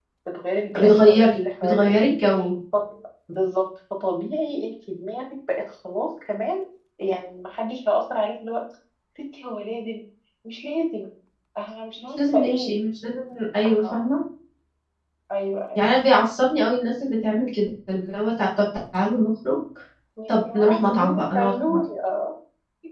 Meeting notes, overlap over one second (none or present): present